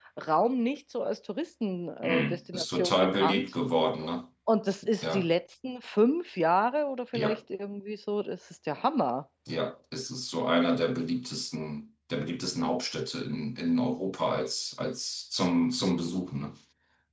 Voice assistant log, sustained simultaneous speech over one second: present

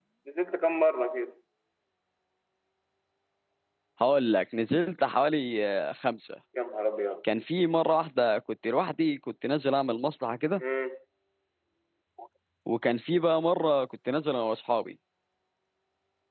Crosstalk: none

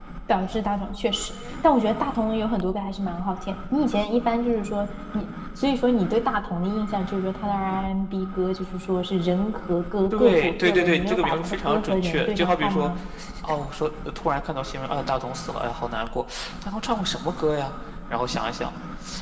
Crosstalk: present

